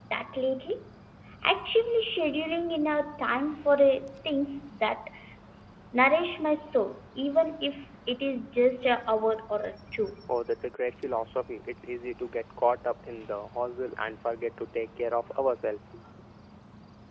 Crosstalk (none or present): none